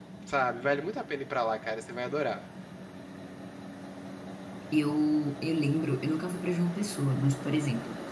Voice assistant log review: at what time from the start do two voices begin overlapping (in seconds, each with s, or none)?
none